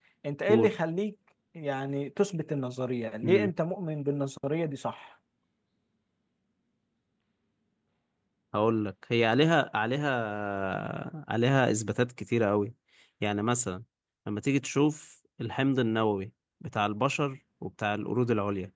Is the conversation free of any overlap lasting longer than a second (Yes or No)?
Yes